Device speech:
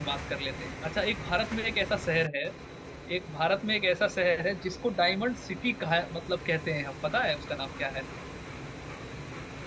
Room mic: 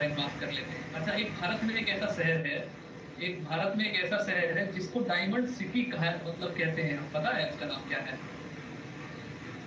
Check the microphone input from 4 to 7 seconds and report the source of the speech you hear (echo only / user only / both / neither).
echo only